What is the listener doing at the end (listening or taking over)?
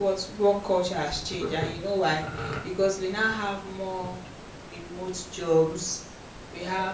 listening